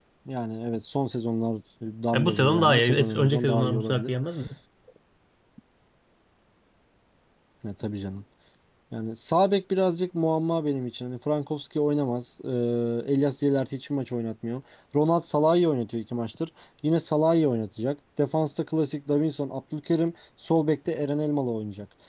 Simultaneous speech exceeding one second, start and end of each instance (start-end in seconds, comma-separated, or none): 2.1-4.1